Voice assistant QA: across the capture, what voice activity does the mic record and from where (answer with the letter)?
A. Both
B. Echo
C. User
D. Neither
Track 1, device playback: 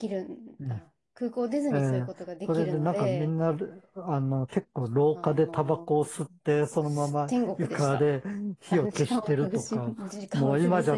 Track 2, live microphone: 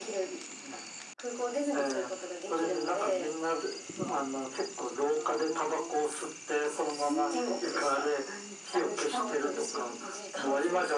A